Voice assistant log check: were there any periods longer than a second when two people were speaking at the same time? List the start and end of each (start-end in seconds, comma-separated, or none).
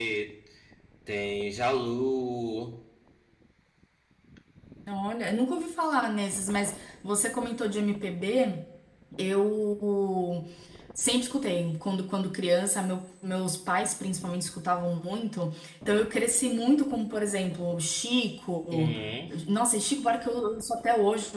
none